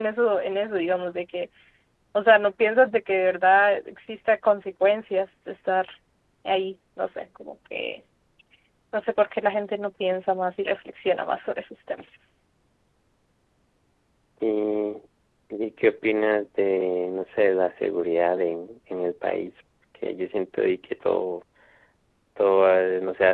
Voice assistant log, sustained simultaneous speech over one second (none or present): none